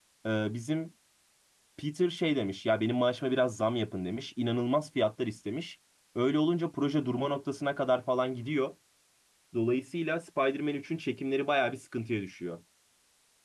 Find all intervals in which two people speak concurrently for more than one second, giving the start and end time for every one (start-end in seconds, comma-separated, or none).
none